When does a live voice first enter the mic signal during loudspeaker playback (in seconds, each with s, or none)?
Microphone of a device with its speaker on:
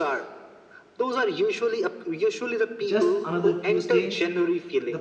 2.8 s